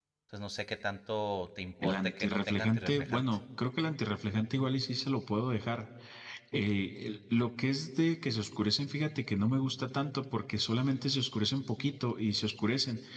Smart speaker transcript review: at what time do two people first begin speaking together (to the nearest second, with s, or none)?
2 s